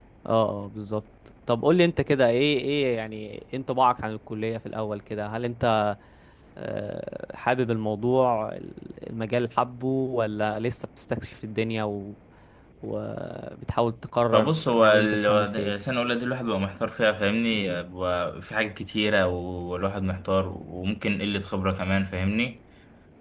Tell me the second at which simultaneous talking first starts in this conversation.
14.3 s

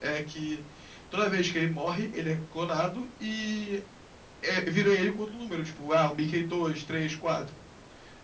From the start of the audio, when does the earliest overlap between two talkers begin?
none

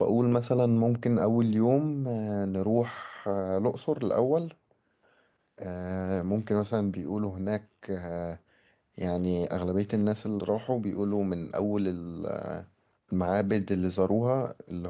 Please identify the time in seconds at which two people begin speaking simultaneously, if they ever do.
none

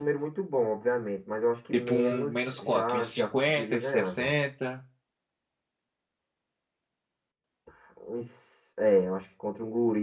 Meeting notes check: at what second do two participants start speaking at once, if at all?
1.7 s

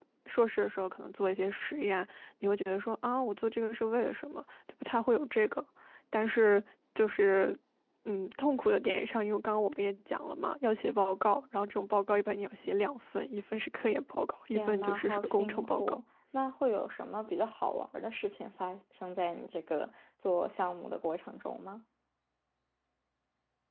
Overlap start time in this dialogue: 14.5 s

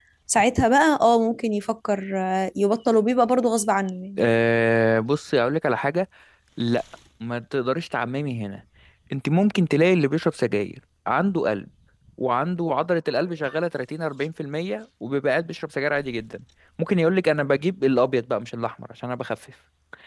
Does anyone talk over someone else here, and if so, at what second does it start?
none

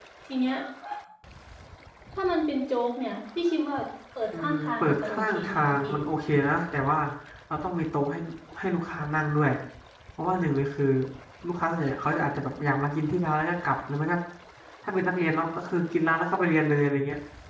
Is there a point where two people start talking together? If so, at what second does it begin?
4.3 s

